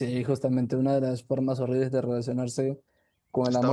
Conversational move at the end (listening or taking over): listening